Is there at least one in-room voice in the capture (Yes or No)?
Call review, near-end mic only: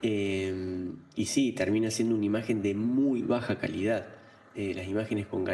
Yes